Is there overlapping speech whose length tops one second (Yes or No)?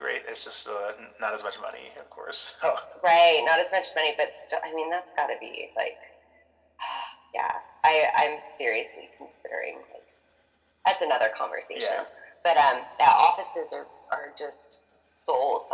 No